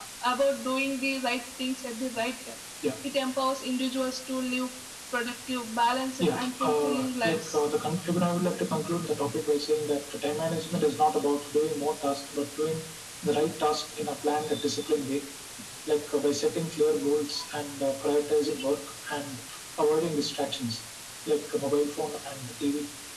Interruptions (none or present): present